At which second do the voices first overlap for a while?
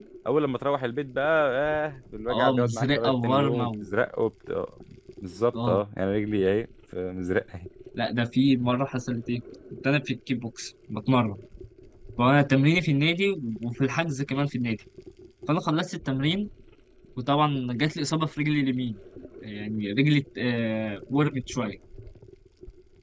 2 s

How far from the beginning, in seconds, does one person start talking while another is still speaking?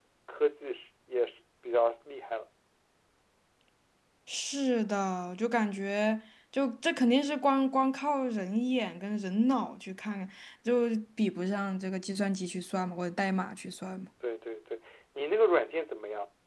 none

